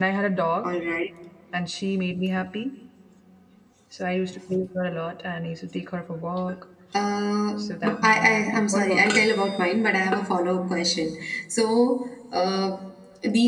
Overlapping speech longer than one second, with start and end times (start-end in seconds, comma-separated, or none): 7.6-9.3